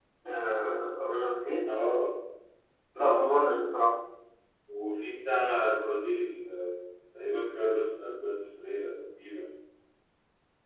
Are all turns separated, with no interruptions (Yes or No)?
Yes